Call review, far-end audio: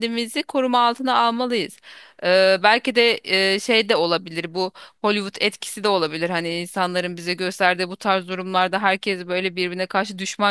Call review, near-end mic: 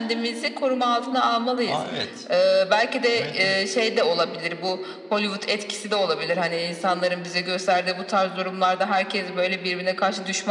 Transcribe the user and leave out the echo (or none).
Aa evet. Evet evet.